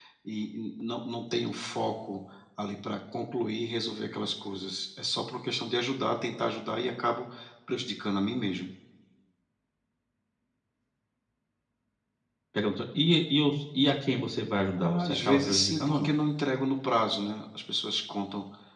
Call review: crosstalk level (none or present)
present